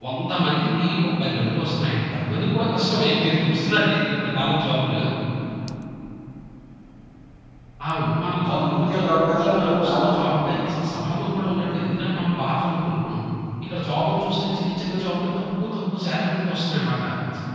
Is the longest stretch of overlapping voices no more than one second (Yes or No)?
No